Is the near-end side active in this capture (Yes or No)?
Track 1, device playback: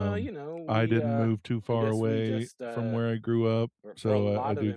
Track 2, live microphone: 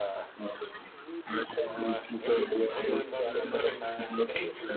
Yes